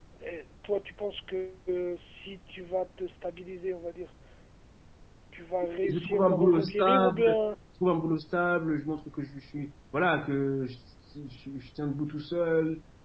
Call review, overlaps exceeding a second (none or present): present